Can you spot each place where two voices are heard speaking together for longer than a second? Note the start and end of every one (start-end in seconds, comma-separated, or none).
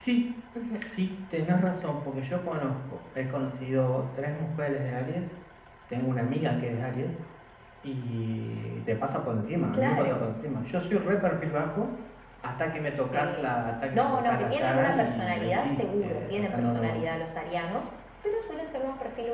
13.9-17.1